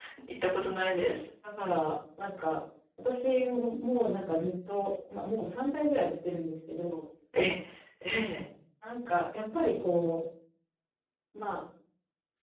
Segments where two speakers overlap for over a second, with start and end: none

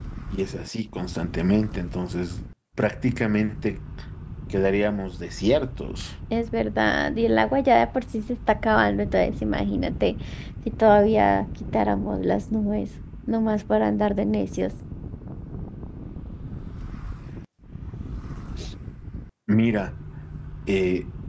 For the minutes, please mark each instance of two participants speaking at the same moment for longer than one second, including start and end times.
none

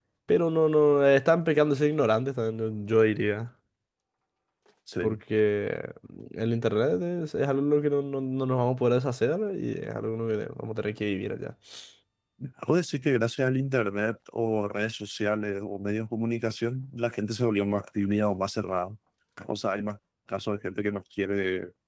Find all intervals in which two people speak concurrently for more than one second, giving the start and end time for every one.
none

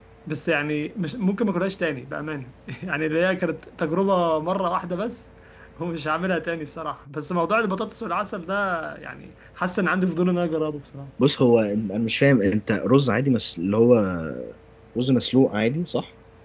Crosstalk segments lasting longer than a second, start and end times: none

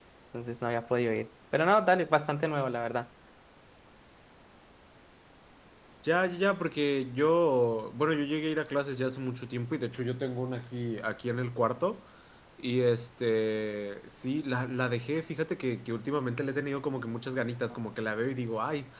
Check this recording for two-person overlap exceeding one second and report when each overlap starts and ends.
none

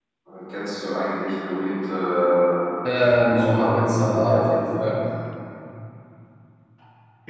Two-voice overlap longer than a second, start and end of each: 3.3-5.0

